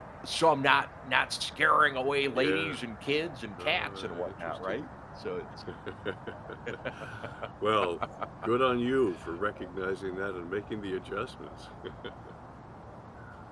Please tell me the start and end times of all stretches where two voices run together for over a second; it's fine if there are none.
3.6-4.8

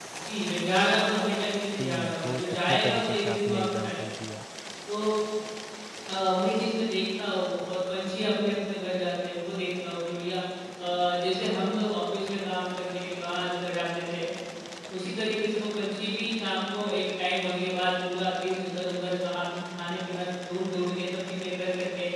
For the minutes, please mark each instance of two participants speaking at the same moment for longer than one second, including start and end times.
1.8-4.1

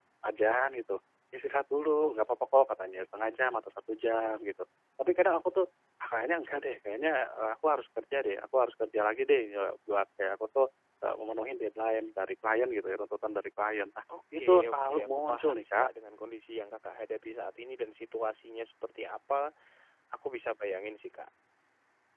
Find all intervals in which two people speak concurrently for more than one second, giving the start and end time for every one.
14.4-15.9

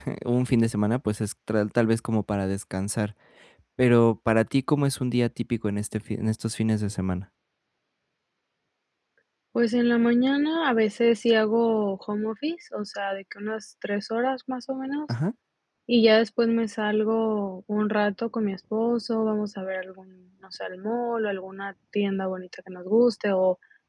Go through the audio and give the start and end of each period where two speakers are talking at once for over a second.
none

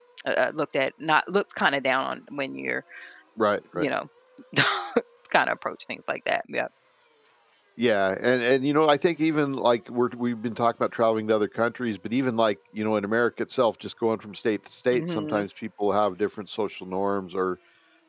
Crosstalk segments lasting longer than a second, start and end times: none

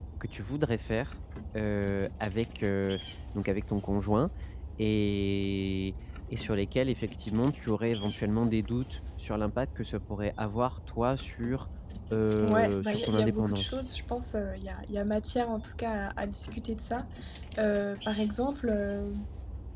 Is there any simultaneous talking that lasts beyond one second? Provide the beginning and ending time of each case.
12.4-13.8

